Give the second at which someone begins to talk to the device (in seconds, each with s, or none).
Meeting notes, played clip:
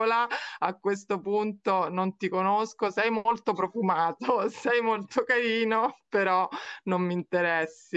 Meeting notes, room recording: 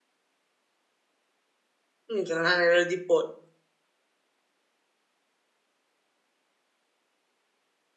2.1 s